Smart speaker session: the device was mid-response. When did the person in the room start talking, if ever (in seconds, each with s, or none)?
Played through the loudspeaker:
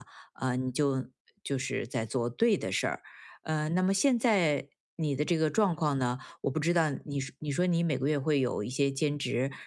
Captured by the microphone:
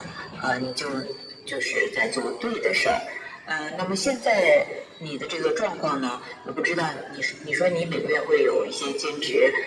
none